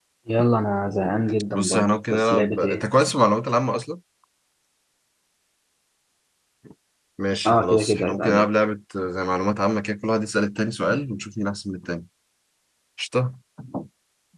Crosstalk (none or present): present